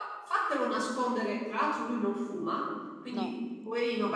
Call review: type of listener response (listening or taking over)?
listening